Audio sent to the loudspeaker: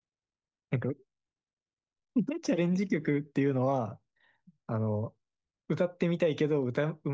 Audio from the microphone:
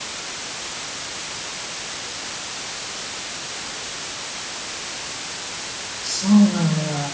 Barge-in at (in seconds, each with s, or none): 6.0 s